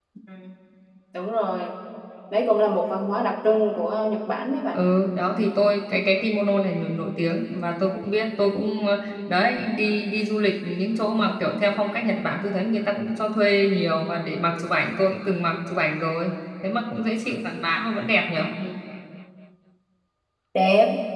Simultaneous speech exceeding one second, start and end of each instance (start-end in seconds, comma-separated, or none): none